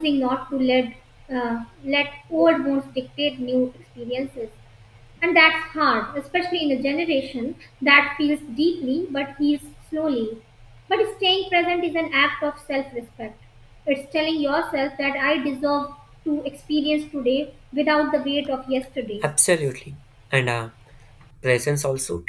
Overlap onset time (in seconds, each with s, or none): none